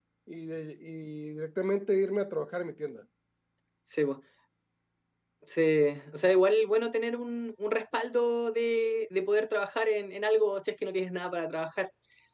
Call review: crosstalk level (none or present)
none